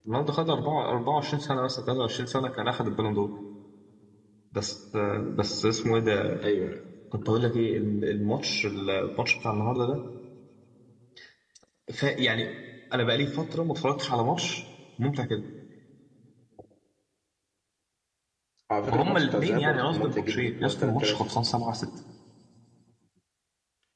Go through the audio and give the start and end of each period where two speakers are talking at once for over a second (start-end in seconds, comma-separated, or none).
18.9-21.2